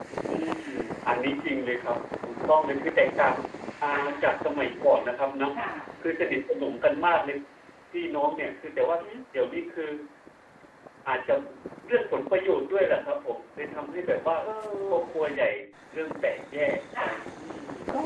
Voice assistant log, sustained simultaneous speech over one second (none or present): none